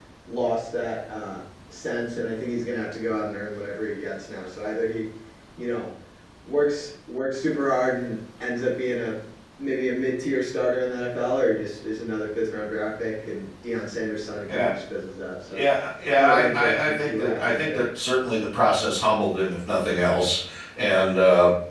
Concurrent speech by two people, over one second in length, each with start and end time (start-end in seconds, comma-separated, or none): 16.2-17.8